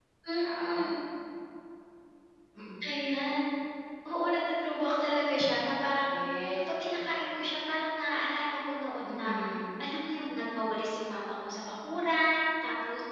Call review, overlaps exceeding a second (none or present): none